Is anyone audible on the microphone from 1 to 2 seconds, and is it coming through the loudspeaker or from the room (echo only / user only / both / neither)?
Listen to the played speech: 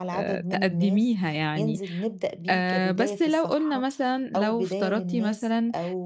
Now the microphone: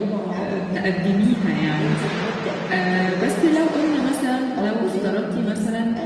echo only